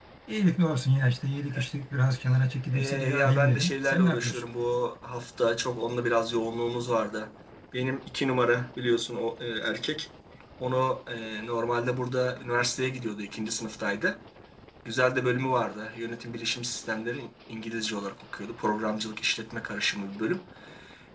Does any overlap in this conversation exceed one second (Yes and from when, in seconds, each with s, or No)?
Yes, from 2.7 s